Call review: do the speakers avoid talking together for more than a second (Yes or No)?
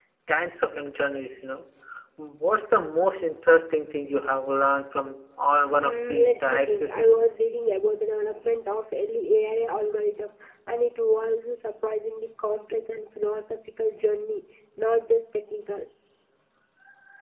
No